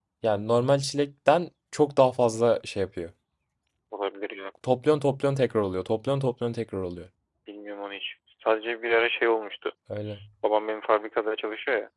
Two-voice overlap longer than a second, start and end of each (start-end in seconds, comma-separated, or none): none